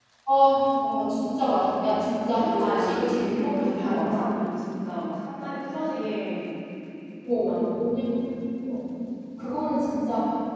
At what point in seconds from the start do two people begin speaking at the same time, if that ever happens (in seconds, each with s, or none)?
2.6 s